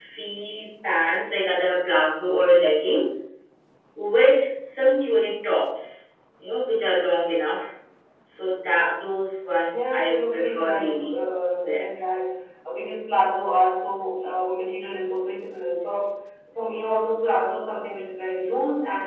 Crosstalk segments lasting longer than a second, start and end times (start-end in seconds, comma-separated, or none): 9.7-11.1